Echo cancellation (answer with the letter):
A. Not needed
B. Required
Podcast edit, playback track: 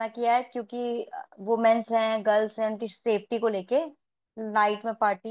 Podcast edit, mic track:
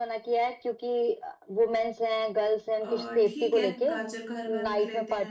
B